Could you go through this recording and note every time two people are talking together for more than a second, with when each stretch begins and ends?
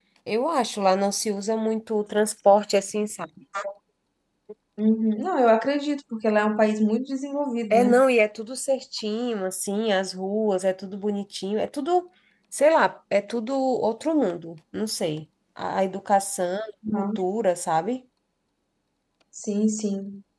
none

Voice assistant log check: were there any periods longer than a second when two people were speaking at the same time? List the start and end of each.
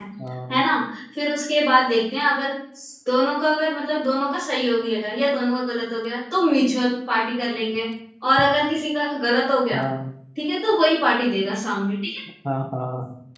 none

